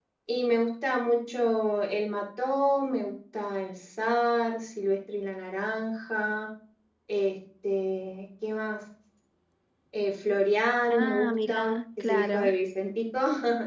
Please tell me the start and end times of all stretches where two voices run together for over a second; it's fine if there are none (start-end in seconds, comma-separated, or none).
10.9-12.6